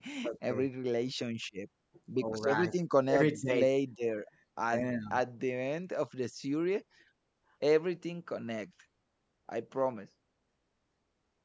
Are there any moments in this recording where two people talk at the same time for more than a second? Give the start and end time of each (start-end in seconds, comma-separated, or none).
none